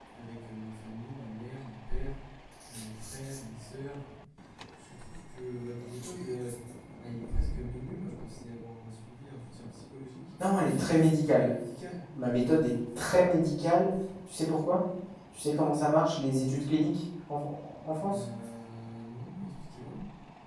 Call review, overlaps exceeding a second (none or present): none